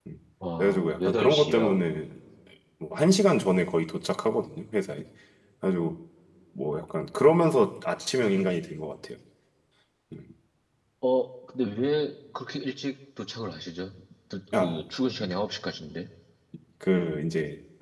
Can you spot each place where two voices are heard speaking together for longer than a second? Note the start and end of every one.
0.6-1.8

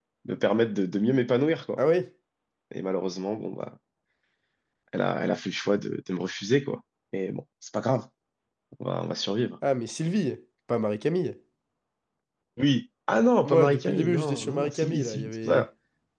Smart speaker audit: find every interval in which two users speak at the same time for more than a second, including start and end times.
13.4-15.7

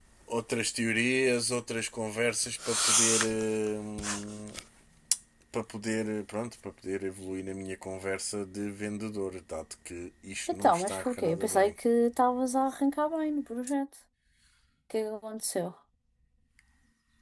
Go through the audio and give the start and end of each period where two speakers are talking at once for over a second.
10.5-11.7

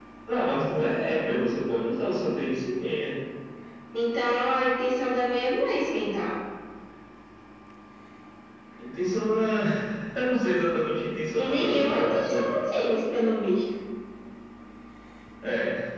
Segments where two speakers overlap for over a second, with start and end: 11.4-12.7

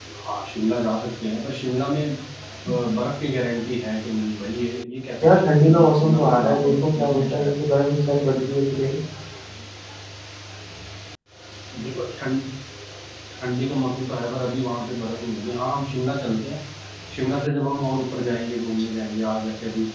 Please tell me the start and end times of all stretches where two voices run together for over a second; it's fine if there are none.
5.2-7.5

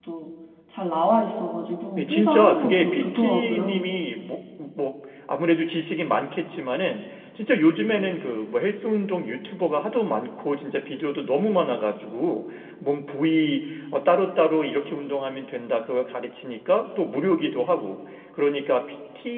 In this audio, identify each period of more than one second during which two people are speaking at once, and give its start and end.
2.0-3.9

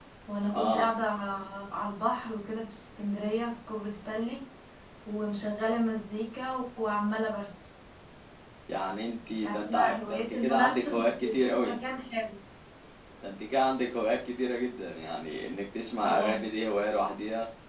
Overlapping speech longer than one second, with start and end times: 9.4-11.7

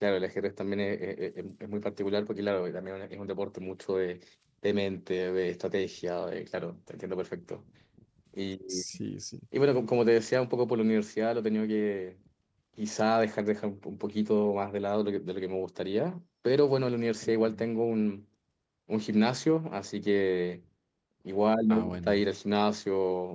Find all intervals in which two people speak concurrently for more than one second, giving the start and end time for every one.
none

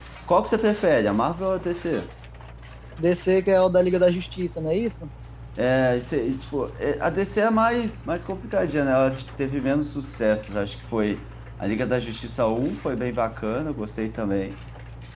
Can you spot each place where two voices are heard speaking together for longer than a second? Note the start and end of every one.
none

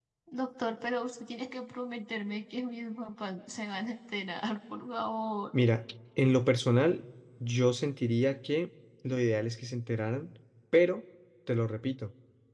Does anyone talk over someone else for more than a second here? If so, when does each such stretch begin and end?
none

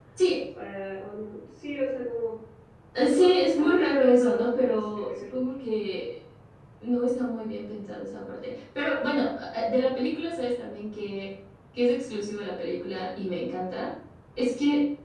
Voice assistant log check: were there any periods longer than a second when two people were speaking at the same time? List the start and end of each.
3.0-5.5

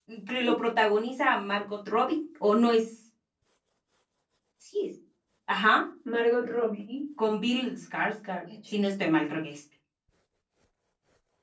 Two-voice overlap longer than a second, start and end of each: none

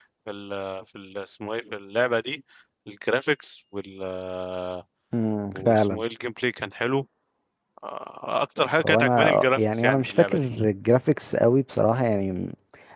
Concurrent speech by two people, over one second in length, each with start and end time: 8.8-10.5

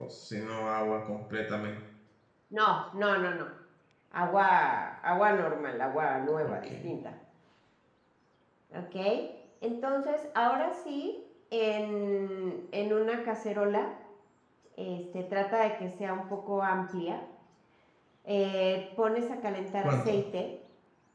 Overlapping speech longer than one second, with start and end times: none

